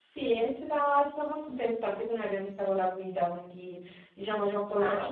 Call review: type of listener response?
listening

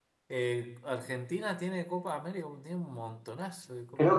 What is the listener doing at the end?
taking over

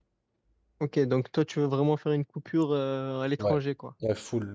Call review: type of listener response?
taking over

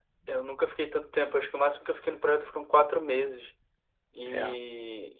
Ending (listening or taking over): listening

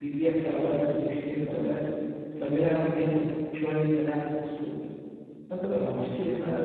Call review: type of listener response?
listening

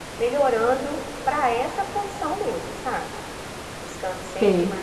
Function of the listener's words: listening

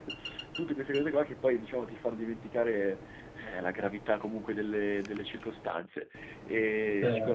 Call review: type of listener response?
listening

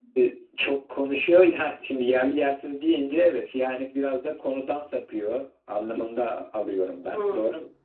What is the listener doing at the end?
taking over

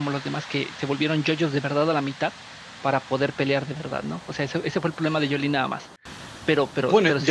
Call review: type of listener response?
taking over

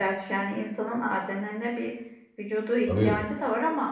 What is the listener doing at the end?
listening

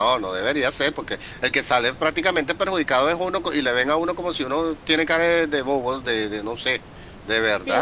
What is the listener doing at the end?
taking over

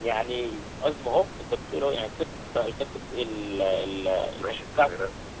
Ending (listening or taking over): taking over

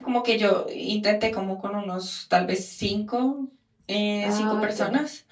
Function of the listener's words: listening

